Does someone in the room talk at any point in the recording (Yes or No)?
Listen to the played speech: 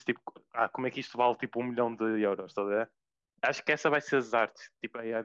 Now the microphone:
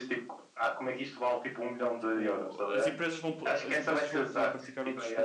Yes